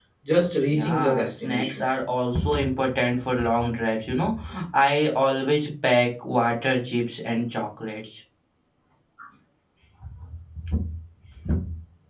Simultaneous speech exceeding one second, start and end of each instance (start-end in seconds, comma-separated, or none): 0.6-1.8